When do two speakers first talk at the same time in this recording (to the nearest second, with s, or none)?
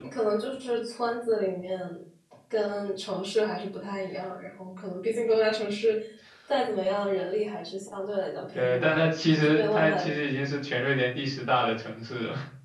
9 s